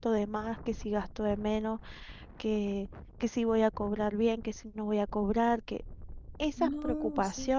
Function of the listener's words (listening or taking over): listening